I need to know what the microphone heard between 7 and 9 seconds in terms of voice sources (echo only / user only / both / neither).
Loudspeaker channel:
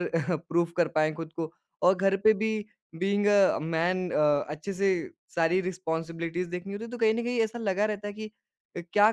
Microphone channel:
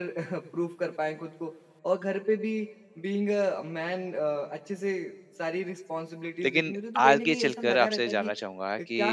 both